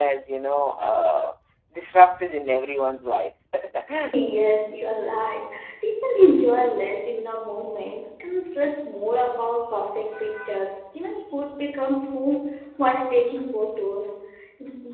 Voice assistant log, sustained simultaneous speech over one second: none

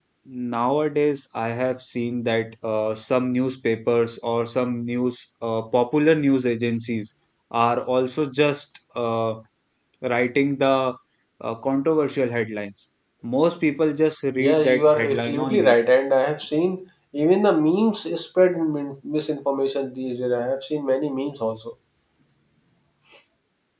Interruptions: present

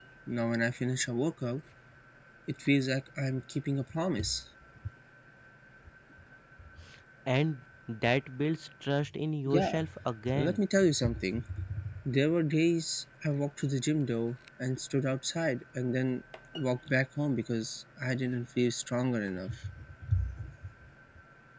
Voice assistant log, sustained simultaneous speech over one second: none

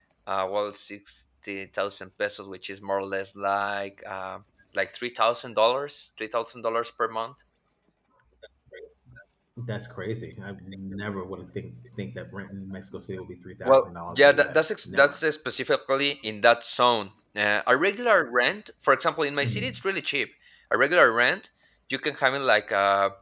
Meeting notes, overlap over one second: present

